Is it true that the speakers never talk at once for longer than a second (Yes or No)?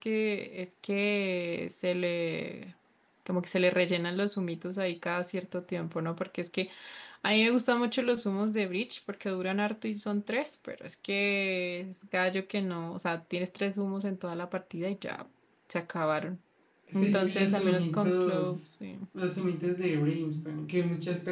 No